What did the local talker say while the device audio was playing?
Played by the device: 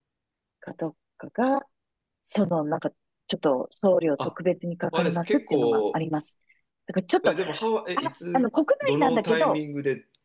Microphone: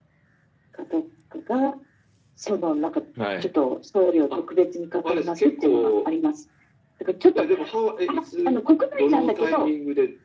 うん。はい。

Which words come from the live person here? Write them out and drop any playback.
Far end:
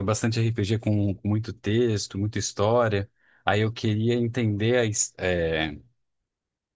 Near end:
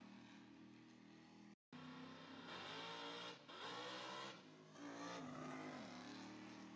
none

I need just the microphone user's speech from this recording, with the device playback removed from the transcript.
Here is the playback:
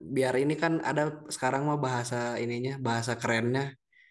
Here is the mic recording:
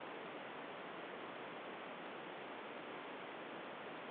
none

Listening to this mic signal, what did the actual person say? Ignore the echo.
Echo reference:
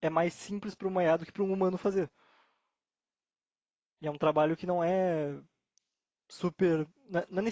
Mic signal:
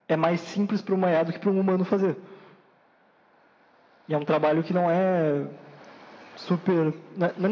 none

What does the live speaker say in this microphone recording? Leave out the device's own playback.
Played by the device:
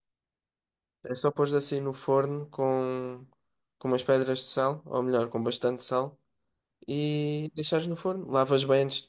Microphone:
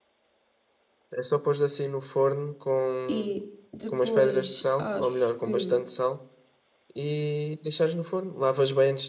E depois acho que

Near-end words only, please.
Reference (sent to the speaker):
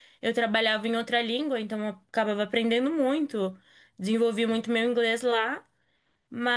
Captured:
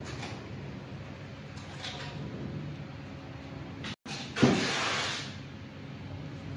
none

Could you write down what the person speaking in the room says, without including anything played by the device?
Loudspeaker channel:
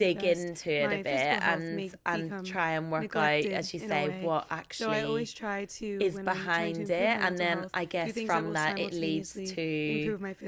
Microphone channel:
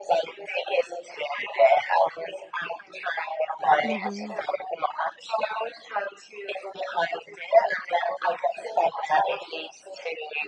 hmm

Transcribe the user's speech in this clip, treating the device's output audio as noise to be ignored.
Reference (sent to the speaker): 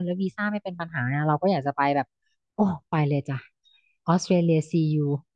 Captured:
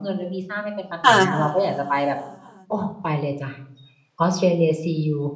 ค่ะ

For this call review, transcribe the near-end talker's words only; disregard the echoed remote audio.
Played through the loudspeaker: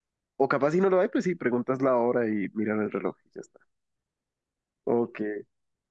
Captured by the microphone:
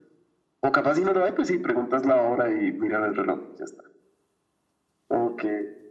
none

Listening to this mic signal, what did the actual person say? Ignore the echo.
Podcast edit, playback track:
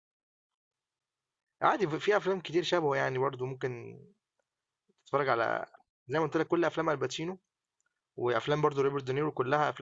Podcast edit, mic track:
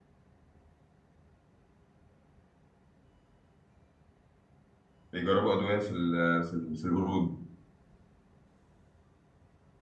بيجربوا أدوية في ال في ال في القرود

